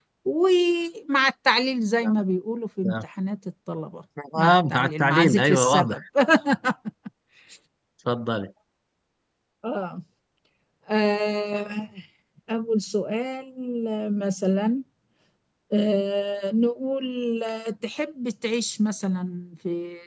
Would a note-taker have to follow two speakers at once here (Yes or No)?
Yes